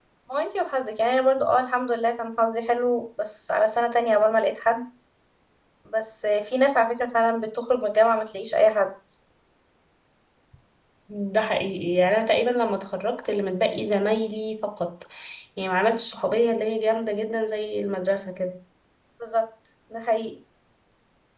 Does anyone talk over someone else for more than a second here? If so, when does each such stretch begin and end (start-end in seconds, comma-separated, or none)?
none